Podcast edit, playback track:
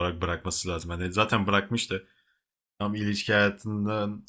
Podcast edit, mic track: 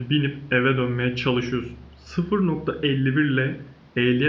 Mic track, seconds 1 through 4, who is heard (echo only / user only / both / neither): user only